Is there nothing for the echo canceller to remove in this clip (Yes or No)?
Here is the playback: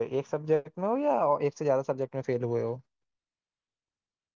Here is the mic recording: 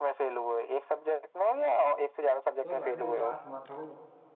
No